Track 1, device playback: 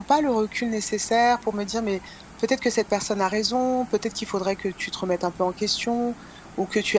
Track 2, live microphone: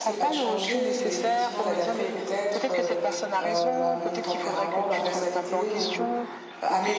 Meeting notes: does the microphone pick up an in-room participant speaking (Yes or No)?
Yes